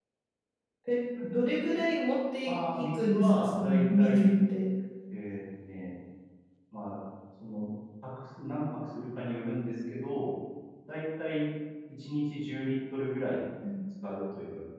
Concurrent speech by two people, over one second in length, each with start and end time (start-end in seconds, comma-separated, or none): 2.5-4.3